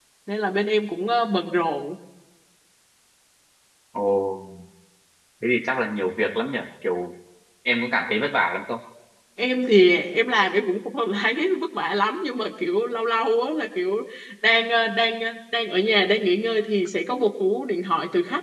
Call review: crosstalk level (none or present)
none